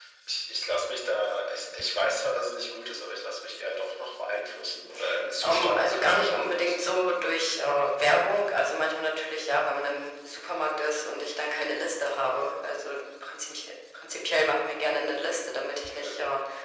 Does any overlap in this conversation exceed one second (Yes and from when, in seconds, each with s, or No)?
Yes, from 5.4 s